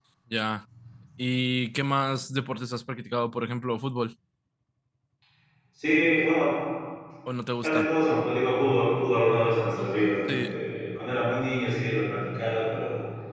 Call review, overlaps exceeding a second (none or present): none